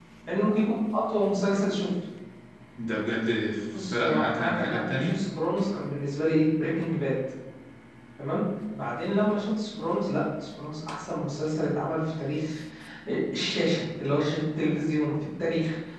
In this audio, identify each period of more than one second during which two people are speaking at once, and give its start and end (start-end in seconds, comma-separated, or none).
3.7-5.2